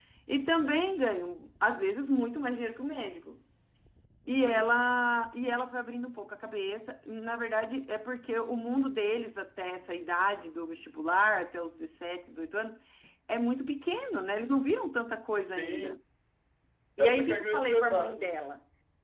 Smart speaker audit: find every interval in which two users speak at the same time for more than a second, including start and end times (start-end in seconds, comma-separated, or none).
17.0-18.4